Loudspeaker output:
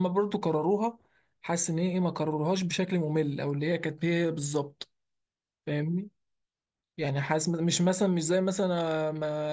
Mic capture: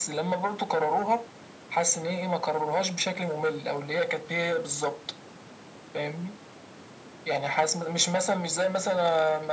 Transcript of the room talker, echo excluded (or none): none